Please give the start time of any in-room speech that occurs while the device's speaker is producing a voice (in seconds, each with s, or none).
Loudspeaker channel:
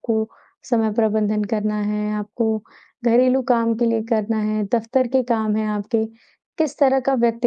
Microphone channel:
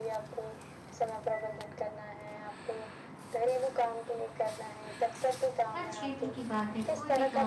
5.8 s